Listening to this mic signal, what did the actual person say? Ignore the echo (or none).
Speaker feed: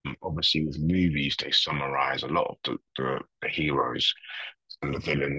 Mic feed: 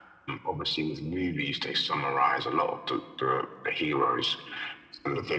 none